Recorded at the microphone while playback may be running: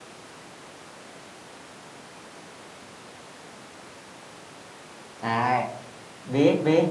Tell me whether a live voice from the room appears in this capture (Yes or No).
Yes